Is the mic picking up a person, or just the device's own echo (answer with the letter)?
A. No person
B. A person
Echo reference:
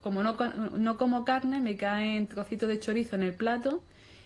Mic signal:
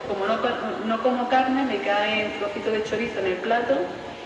A